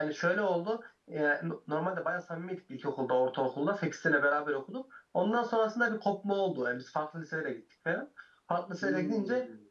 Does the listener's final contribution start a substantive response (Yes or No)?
No